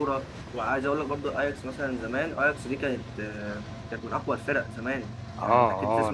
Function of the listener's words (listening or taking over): taking over